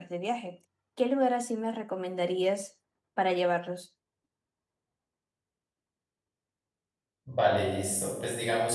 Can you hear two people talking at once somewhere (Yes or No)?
No